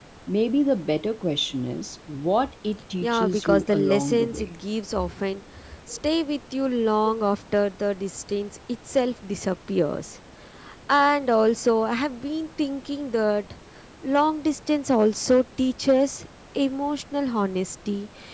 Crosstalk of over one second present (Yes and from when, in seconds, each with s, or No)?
Yes, from 3.0 s